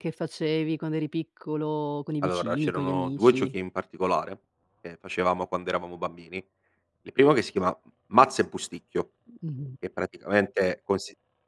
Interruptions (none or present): present